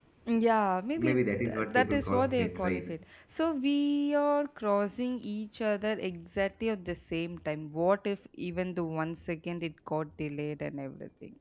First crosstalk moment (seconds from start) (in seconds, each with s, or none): 1.0 s